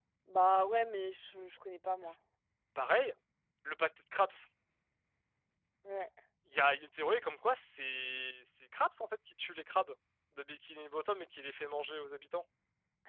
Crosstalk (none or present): none